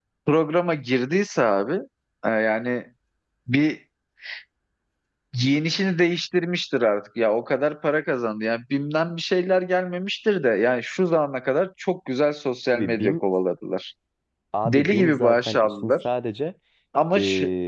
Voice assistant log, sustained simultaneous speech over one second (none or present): present